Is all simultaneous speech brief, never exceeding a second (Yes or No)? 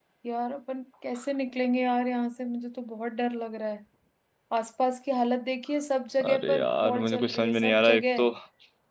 No